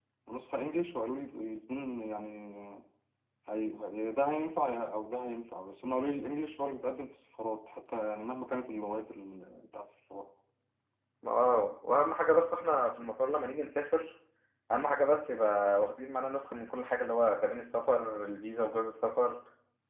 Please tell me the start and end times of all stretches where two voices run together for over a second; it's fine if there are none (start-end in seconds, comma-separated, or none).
none